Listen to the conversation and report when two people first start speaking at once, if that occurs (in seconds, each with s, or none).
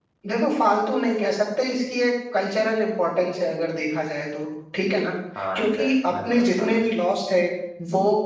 5.5 s